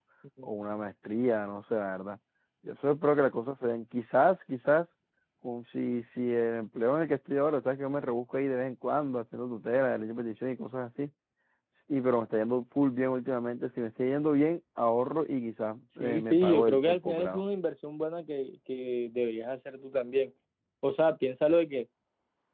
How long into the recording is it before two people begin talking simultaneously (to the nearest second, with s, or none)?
16 s